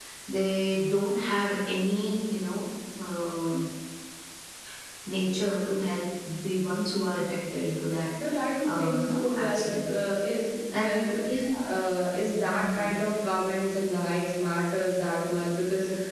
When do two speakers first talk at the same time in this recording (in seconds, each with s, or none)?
8.6 s